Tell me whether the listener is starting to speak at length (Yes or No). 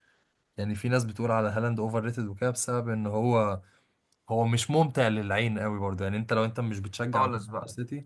No